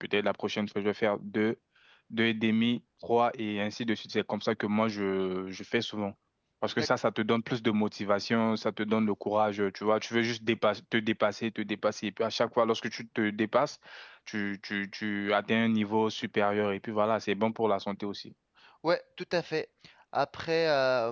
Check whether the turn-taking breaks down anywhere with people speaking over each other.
No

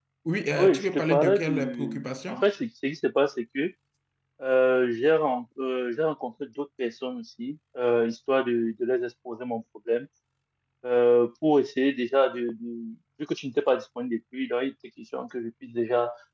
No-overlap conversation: No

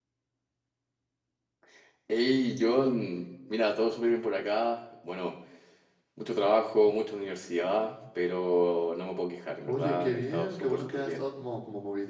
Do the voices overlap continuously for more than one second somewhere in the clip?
Yes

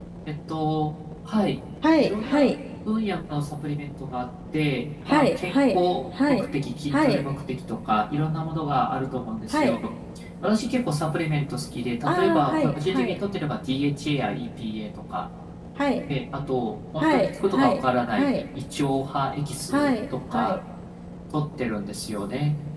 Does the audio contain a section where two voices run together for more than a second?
Yes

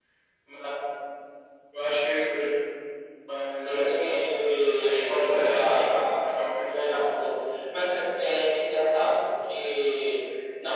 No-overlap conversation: No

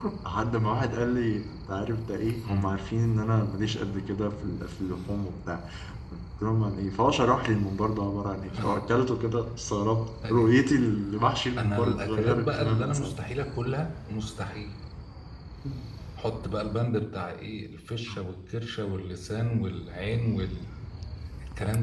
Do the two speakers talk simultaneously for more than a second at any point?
Yes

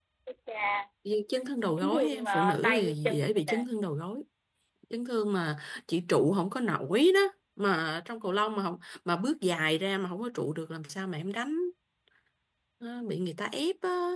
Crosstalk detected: Yes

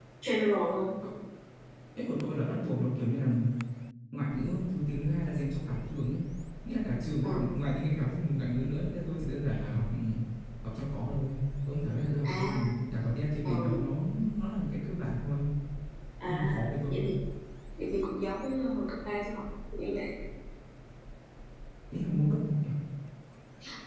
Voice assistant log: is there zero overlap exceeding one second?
Yes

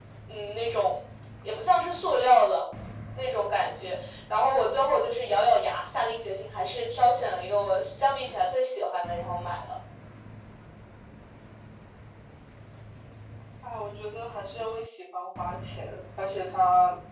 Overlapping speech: No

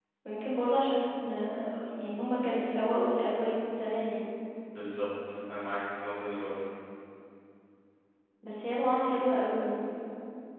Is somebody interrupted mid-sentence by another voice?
No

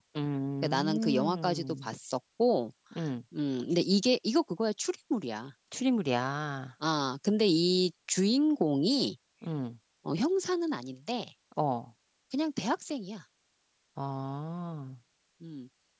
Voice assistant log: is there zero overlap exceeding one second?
No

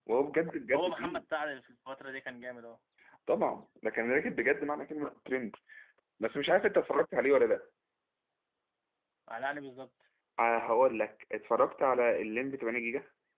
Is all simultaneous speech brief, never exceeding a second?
Yes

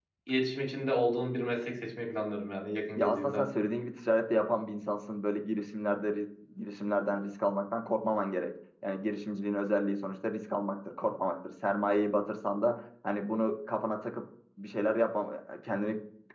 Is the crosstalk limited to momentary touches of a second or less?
Yes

